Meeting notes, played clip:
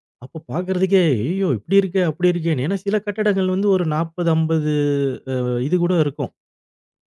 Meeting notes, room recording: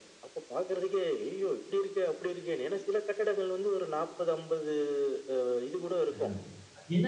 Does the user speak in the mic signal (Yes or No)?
Yes